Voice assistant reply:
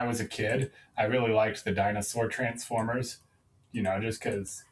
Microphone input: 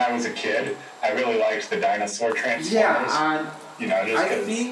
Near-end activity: present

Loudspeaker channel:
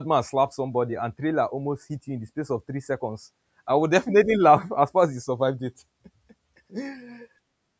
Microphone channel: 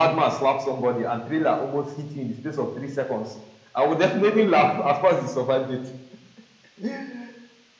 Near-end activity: none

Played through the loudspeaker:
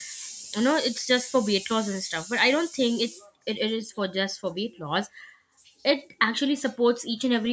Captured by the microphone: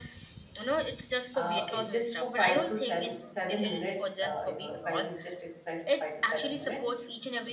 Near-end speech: present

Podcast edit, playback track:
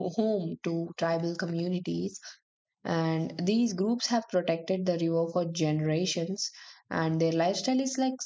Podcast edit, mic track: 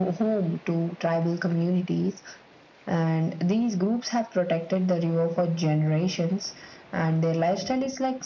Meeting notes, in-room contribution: none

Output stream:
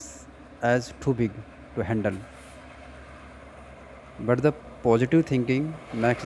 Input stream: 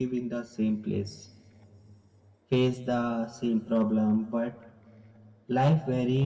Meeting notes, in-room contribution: present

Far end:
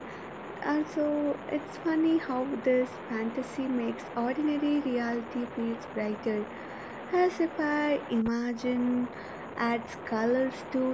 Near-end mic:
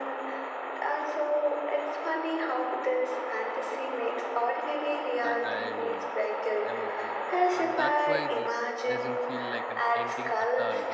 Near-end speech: present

